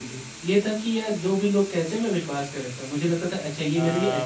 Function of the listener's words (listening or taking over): taking over